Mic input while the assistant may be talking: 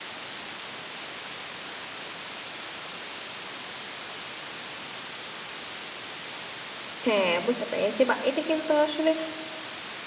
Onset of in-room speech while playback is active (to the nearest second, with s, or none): 7 s